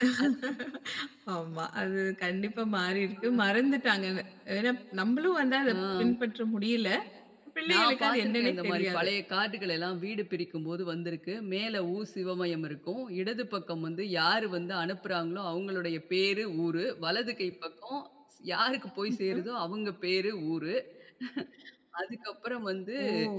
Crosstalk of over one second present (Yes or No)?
Yes